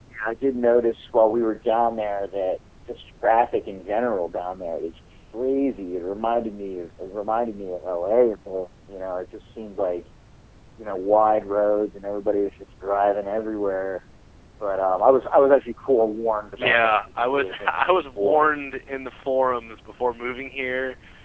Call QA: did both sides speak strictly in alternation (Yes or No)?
No